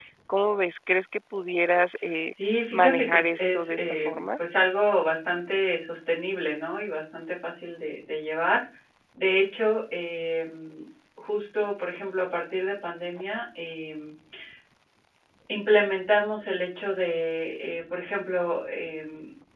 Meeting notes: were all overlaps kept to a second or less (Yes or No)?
No